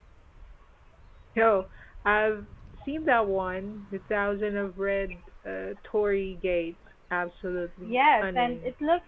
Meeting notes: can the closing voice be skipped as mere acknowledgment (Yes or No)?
No